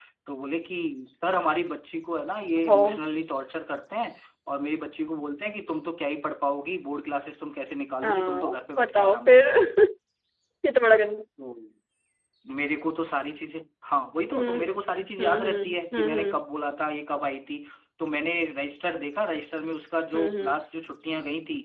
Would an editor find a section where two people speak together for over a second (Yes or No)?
Yes